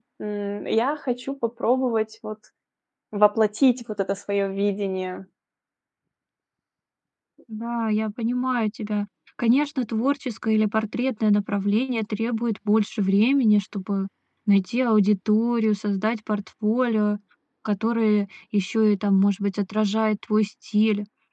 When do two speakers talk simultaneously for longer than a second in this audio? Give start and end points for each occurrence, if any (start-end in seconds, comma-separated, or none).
none